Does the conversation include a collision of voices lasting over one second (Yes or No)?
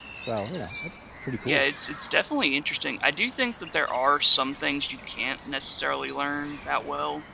No